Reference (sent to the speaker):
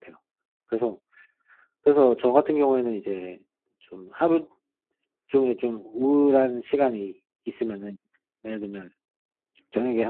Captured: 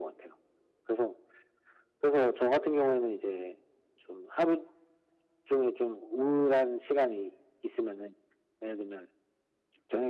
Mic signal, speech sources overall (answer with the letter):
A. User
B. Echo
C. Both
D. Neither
B